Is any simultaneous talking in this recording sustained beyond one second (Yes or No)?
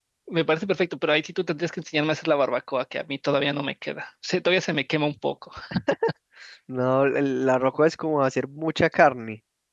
No